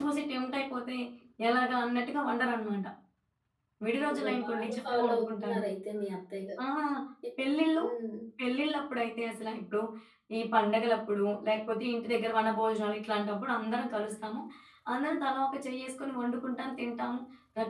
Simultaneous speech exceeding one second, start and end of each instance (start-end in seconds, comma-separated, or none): 4.1-5.6